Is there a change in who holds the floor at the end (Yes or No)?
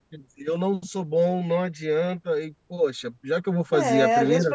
Yes